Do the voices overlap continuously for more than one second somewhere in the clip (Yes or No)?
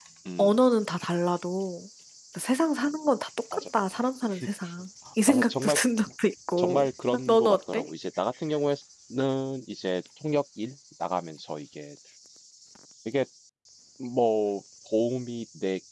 Yes